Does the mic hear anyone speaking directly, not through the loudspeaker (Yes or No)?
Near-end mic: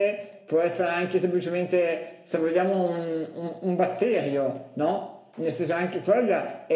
No